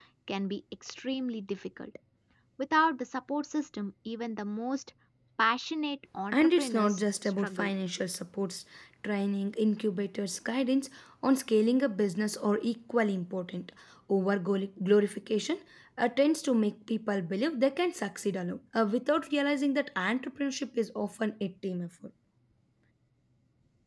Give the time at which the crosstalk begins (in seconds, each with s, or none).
6.3 s